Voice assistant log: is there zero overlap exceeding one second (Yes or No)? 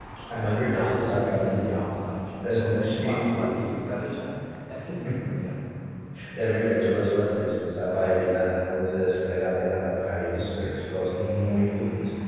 No